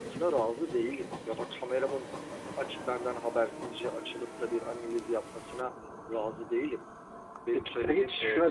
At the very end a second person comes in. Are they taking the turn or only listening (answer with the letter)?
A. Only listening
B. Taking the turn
B